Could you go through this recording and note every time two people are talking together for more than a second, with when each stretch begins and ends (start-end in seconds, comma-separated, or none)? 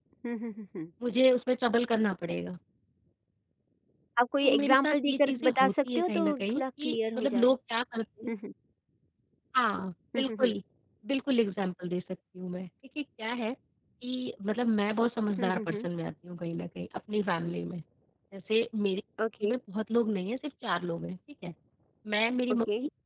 4.4-7.5